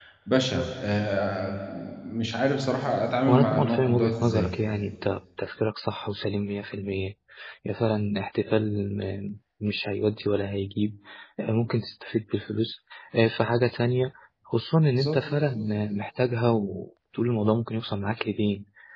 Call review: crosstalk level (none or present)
present